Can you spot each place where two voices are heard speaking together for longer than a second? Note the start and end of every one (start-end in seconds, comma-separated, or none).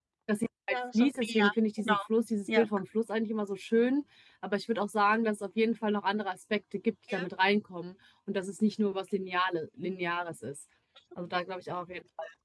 0.7-1.9